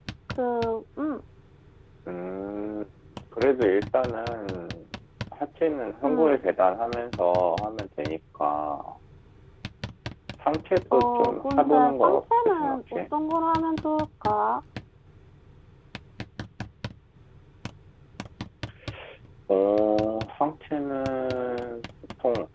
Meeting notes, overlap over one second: present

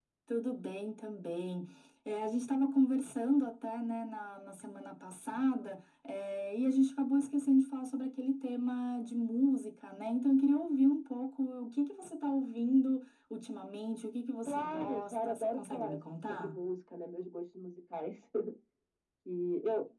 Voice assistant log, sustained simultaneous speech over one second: present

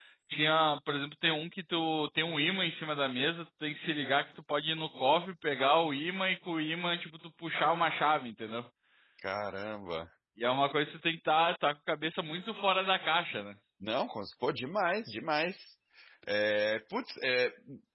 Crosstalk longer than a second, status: none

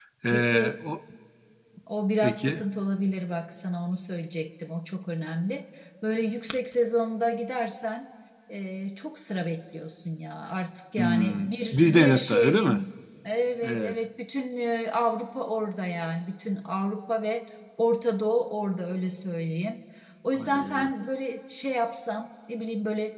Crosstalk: present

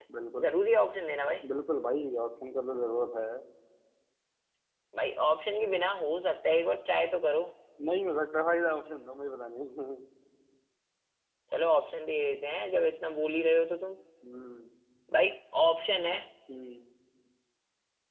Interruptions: none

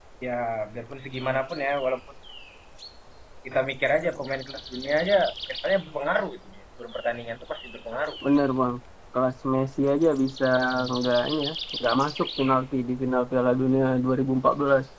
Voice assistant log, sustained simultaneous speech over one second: none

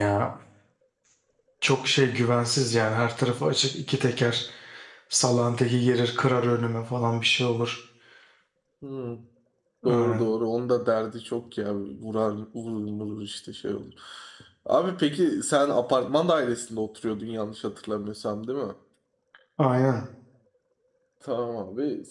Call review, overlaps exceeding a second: none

